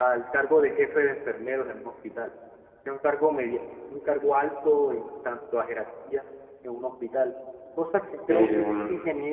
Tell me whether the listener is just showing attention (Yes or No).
Yes